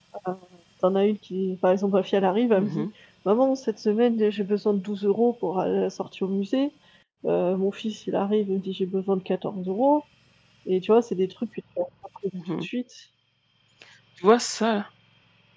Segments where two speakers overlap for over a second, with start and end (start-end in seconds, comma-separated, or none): none